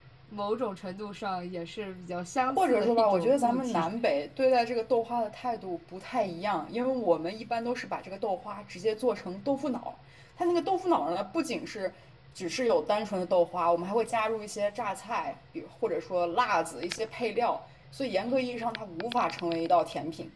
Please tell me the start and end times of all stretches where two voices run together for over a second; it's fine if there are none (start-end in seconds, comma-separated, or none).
2.5-3.9